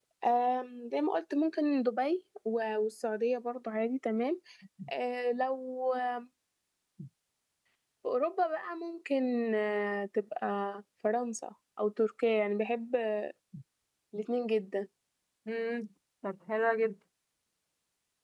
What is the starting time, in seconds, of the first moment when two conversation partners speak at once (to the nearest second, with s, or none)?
none